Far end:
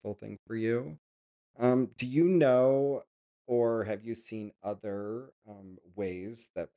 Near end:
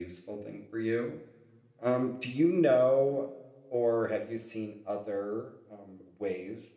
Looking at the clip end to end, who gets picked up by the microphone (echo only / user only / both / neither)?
echo only